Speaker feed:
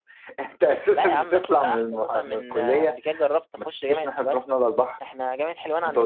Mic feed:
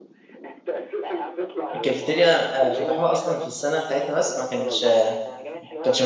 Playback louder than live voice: No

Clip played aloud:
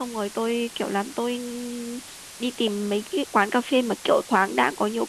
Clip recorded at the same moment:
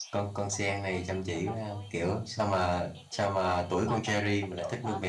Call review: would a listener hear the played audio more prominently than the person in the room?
No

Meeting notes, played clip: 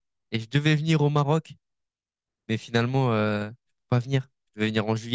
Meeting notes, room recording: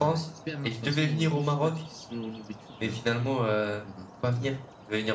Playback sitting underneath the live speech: No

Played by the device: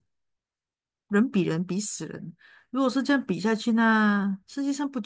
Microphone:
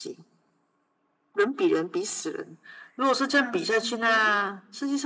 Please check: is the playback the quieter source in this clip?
No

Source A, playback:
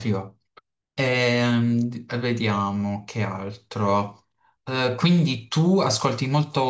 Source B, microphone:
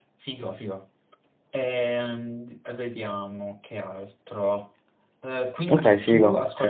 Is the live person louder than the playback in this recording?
Yes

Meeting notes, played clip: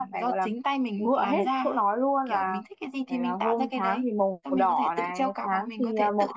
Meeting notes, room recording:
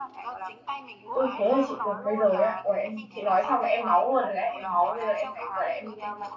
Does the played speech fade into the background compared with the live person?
Yes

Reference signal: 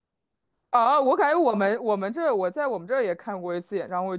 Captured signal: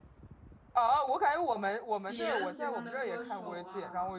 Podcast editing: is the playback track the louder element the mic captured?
Yes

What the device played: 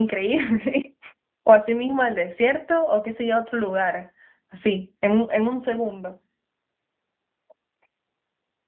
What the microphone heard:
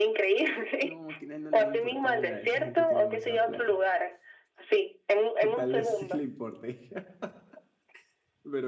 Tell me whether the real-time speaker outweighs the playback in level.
No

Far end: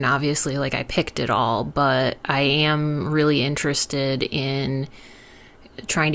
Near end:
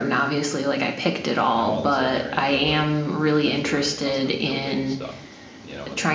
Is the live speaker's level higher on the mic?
No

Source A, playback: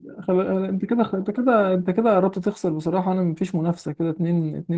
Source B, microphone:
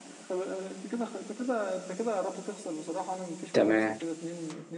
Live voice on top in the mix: Yes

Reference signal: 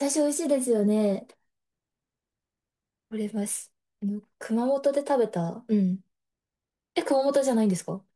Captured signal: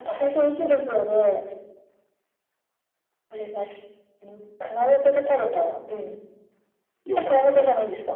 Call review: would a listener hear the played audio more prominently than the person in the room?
Yes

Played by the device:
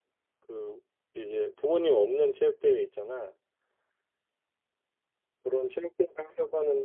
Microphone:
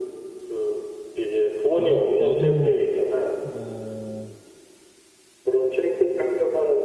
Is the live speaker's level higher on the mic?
No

